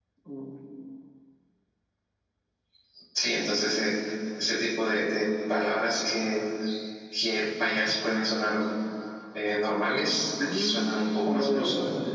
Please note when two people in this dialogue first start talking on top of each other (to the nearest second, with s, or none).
10 s